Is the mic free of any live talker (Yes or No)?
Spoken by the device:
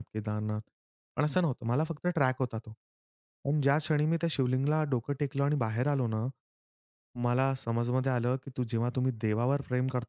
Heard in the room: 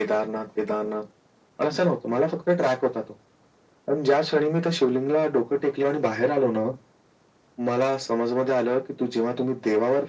Yes